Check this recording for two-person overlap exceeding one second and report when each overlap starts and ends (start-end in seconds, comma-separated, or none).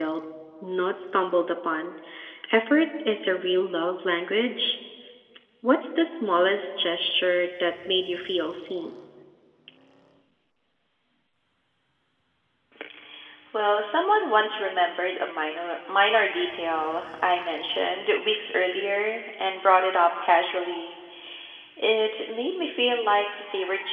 none